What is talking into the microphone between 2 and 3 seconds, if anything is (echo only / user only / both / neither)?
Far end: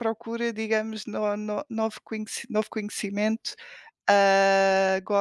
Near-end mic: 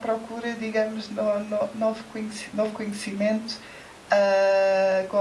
echo only